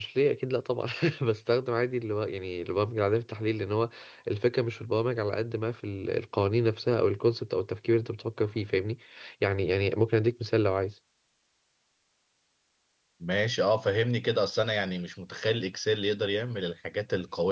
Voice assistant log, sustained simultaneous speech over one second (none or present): none